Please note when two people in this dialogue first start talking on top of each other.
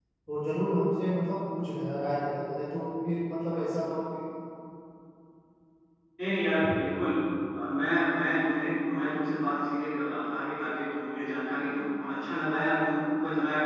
none

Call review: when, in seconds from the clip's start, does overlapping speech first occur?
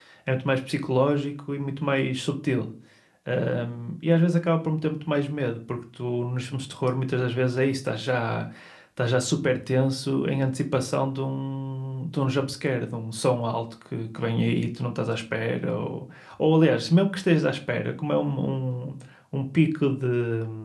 none

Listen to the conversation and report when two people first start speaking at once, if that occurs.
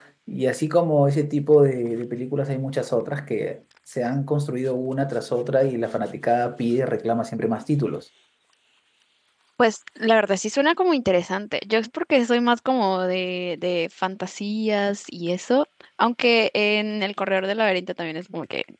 none

